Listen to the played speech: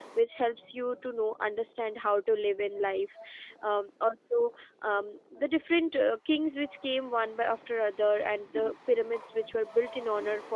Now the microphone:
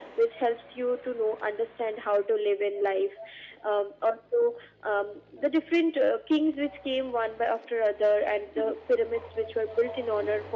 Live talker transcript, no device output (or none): none